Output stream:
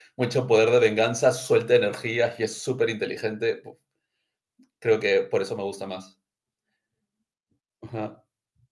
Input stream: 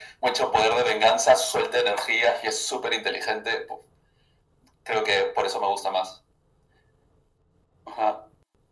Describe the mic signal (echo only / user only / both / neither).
echo only